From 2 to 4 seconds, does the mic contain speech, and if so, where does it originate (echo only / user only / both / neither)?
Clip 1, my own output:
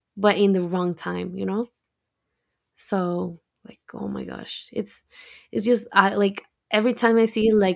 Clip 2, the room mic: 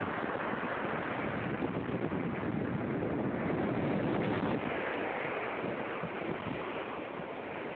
neither